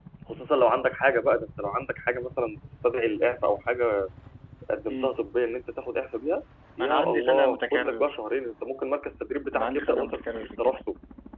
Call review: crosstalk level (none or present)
present